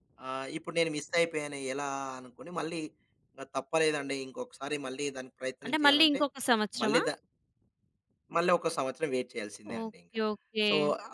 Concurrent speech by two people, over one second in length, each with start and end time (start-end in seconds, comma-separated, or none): none